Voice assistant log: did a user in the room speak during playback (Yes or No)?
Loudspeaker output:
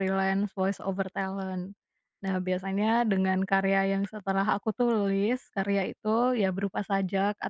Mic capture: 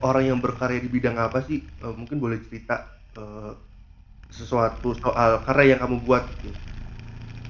Yes